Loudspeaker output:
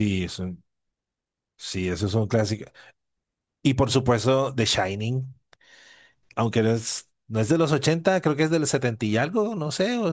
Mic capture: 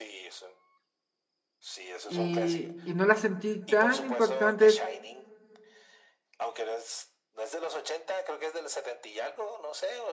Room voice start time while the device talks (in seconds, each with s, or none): 2.0 s